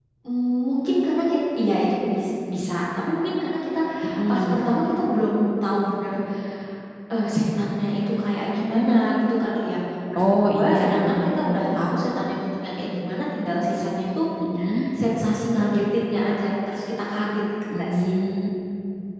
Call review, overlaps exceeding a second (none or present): present